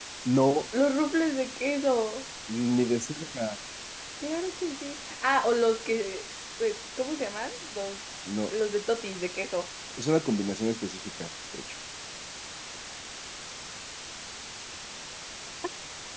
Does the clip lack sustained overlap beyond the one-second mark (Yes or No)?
Yes